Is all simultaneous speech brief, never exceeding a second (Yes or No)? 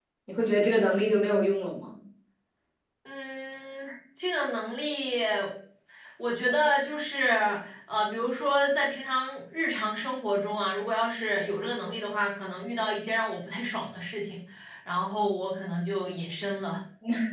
Yes